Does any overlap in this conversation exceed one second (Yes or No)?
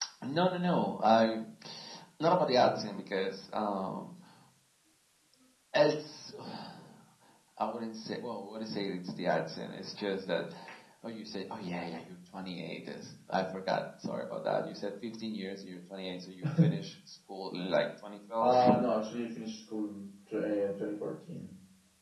No